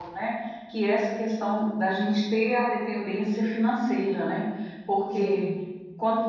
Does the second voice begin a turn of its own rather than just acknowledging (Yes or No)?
No